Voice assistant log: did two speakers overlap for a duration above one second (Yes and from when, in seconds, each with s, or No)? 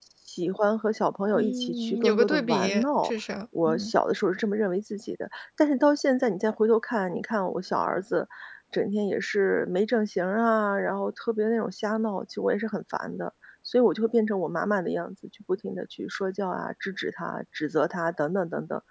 Yes, from 1.3 s